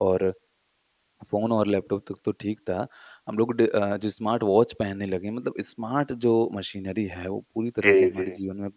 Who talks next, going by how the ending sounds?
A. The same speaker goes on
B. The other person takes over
A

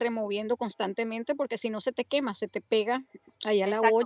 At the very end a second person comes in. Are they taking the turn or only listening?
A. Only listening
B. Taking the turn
B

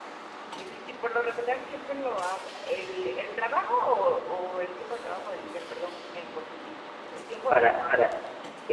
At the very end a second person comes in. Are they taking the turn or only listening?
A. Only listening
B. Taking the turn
B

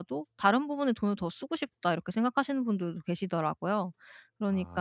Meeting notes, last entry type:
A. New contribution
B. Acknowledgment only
B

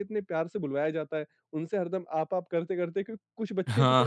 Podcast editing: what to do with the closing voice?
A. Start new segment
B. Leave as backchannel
B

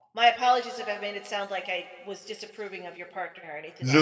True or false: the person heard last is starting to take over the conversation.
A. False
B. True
B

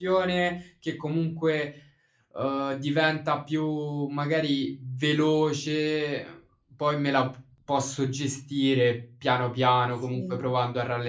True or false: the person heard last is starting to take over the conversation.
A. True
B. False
B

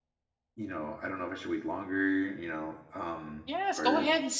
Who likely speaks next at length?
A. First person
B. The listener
B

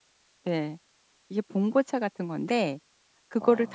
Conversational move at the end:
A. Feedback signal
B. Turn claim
A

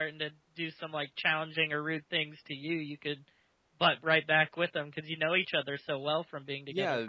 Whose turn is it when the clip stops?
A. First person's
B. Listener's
B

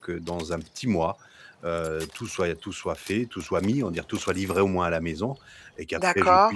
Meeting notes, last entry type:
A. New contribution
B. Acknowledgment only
B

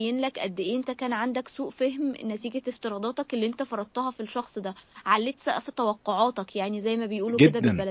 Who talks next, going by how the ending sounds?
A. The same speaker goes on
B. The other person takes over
B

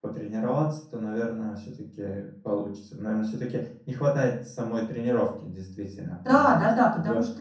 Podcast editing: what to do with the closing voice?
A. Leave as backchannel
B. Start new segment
B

